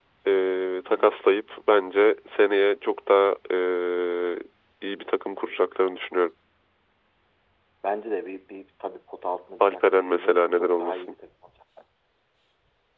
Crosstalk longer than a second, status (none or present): present